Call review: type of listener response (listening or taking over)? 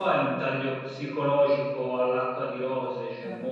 listening